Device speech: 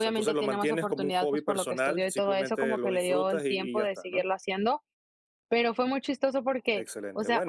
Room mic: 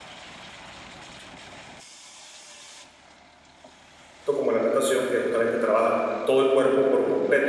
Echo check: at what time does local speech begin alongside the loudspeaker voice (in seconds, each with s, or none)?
4.3 s